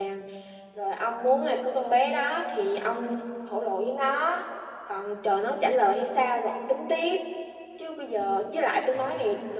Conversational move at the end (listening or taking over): listening